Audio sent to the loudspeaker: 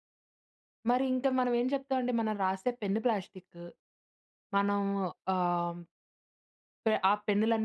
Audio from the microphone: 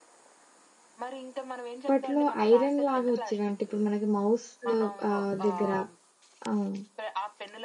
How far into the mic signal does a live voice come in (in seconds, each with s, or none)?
1.8 s